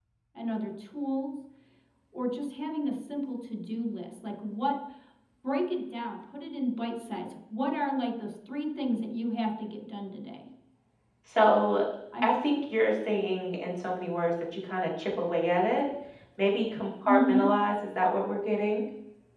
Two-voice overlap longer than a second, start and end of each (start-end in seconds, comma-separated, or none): none